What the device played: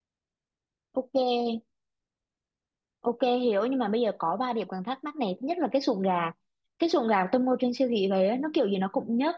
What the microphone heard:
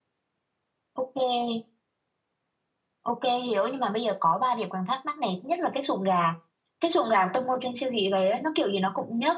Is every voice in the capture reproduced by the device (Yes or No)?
Yes